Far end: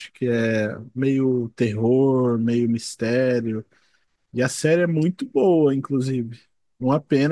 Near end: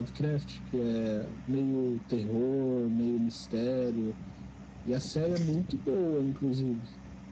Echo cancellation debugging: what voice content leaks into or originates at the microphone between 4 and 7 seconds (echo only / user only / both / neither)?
echo only